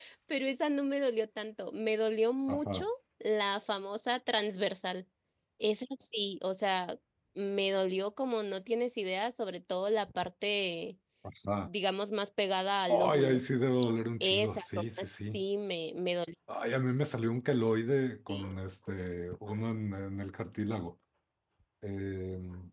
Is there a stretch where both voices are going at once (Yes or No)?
Yes